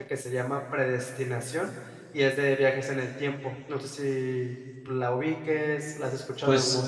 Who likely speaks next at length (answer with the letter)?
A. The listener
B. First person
A